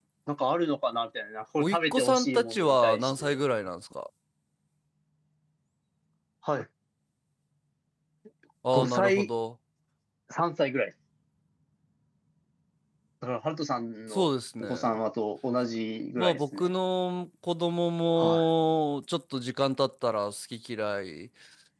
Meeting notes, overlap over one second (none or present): present